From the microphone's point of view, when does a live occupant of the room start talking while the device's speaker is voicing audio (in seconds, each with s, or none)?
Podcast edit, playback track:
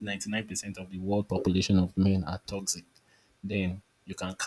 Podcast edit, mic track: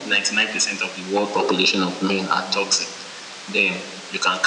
none